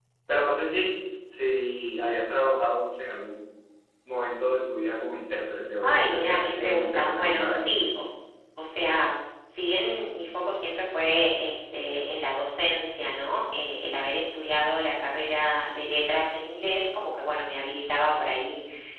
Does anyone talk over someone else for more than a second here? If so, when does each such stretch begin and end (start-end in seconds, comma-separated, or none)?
5.8-7.7